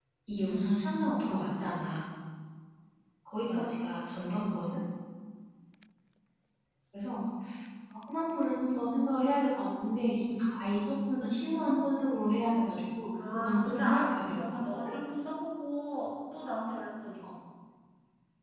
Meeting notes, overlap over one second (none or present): present